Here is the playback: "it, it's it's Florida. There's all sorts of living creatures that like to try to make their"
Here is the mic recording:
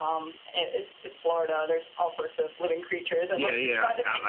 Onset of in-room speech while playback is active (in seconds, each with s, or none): 3.3 s